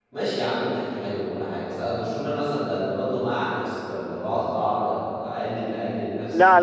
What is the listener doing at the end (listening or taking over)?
taking over